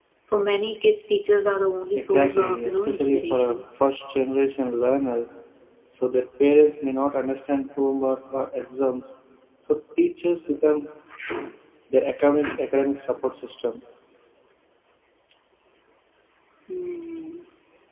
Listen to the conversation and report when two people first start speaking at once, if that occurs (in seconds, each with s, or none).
1.9 s